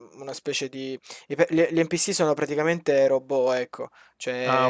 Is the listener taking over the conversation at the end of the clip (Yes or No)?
No